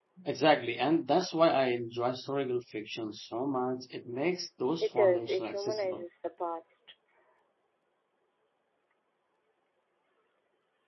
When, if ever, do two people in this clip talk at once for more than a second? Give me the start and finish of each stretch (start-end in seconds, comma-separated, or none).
4.8-6.0